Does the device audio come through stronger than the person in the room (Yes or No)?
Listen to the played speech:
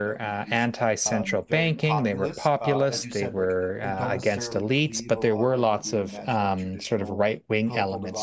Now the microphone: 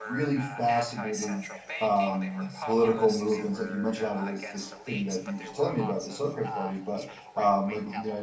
No